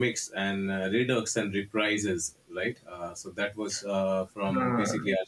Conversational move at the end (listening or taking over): listening